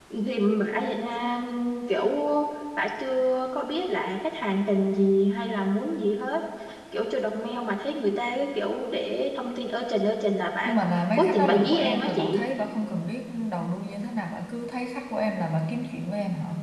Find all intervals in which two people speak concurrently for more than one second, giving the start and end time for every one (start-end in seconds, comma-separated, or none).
11.1-12.4